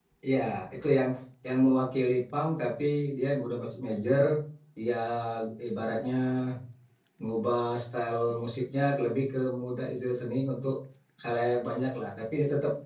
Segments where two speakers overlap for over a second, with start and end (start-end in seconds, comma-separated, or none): none